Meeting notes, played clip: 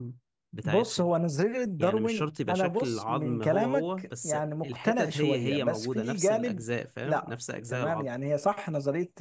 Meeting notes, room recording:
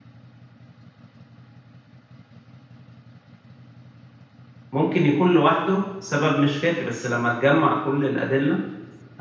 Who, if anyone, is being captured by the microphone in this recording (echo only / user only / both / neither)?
user only